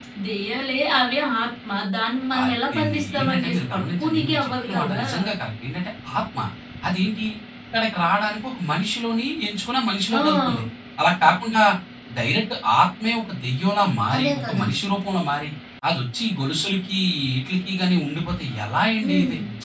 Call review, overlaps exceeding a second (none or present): present